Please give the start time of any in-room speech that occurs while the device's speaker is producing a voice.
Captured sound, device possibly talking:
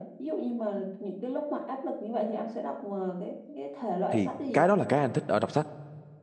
4.1 s

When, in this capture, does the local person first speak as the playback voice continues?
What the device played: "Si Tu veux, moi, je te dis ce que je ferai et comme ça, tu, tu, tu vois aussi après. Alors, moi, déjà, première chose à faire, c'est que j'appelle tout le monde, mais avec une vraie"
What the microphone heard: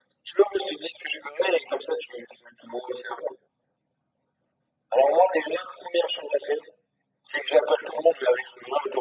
none

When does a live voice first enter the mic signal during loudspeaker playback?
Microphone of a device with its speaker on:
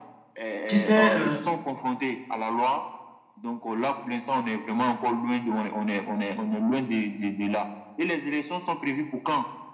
0.6 s

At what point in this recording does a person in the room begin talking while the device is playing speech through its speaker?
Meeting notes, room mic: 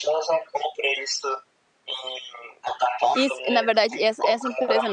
3.1 s

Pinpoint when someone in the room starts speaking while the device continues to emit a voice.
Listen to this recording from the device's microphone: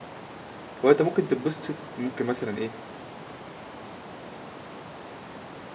0.8 s

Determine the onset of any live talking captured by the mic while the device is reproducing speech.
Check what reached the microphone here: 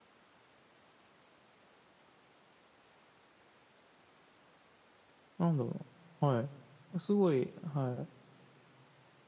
5.4 s

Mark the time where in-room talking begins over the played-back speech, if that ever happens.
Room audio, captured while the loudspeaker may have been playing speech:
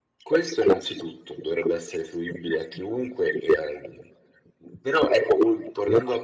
none

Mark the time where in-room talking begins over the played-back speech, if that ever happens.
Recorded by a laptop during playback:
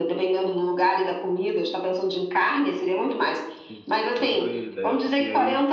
3.7 s

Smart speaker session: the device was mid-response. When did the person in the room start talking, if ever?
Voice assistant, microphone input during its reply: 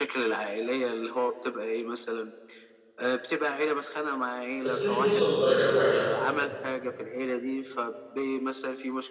4.6 s

